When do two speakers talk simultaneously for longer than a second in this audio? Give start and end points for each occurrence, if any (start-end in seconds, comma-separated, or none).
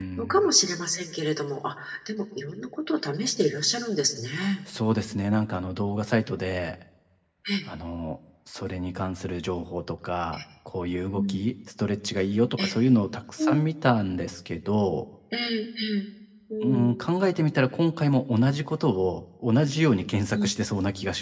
none